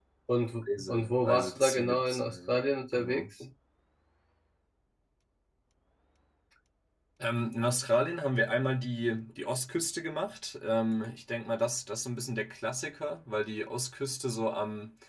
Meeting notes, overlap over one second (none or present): present